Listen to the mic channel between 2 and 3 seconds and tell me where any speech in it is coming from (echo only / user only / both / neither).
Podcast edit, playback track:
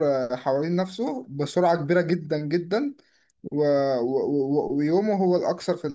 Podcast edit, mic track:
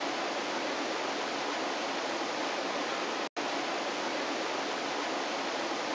neither